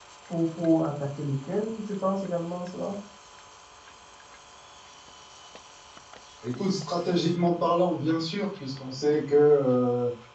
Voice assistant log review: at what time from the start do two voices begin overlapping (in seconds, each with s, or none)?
none